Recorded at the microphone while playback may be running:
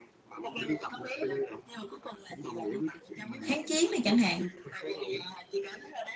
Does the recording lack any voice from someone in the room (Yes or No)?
No